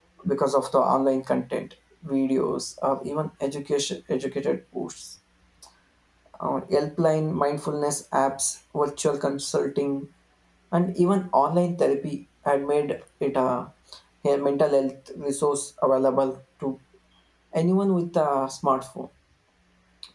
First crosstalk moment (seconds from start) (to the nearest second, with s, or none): none